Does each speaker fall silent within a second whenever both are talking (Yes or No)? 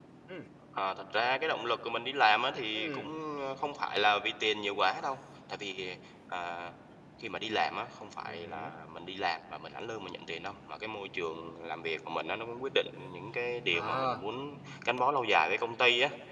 Yes